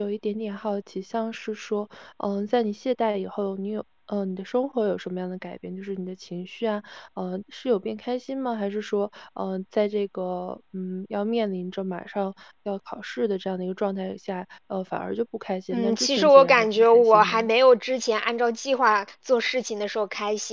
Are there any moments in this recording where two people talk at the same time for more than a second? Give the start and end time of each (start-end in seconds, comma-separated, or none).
15.7-17.5